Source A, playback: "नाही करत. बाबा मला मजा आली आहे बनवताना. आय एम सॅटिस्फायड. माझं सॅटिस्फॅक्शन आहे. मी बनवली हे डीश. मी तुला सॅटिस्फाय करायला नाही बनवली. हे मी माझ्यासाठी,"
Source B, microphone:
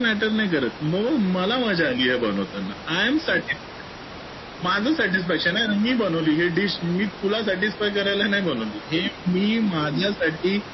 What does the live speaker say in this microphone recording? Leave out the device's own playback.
none

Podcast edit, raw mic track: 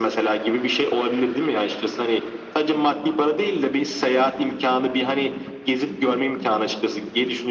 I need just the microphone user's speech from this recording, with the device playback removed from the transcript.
none

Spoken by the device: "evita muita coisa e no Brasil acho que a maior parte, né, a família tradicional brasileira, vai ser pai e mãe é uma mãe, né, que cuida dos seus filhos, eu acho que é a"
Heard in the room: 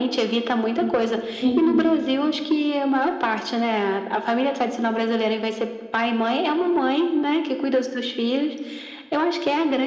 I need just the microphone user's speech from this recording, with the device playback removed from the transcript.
Uhum. Sim, sim.

